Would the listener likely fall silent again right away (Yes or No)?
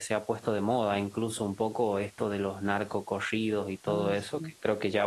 Yes